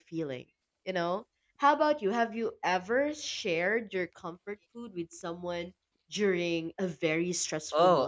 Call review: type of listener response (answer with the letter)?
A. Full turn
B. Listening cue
A